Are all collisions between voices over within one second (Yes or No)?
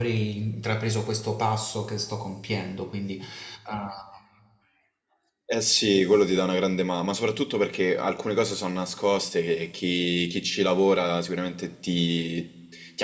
Yes